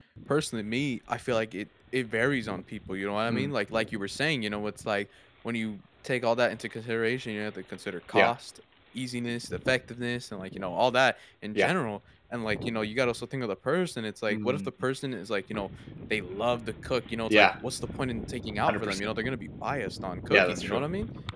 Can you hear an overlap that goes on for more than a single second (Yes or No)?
No